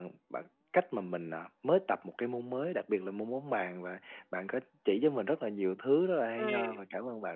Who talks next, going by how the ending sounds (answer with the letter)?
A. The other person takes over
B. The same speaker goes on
B